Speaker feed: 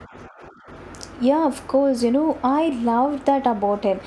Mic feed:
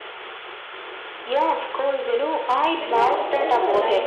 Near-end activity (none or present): present